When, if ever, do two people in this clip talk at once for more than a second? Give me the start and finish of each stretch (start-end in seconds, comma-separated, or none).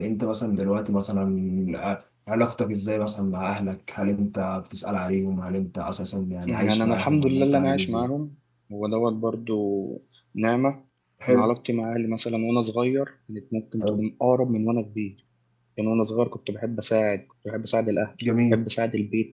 6.5-8.1